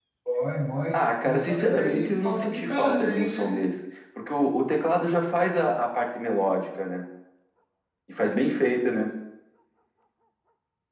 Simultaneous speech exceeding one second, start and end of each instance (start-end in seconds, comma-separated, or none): 0.9-3.5